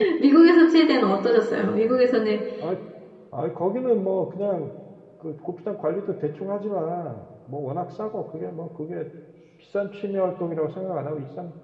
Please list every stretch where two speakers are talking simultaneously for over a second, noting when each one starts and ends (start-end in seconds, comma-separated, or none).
none